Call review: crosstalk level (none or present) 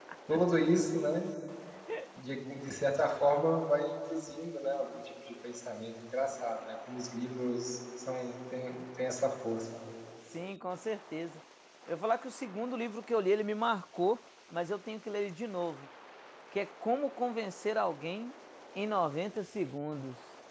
none